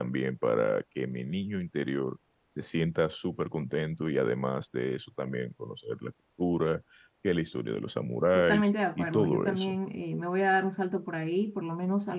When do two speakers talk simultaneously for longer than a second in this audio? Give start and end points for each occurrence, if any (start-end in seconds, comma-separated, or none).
8.3-9.8